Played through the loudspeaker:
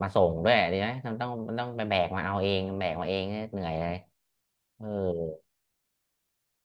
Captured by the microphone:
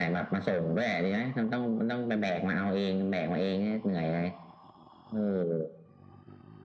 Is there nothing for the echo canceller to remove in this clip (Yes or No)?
No